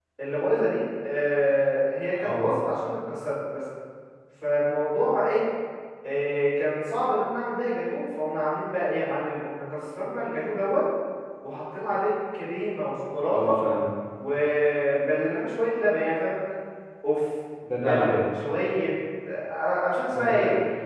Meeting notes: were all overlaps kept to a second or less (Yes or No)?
Yes